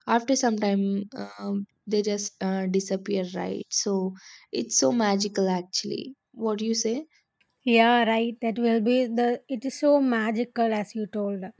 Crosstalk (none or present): none